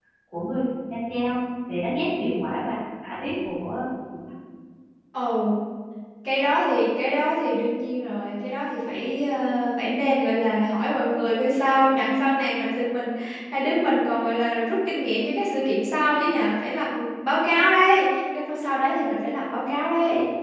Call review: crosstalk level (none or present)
none